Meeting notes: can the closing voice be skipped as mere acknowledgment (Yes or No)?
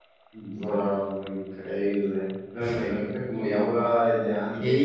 No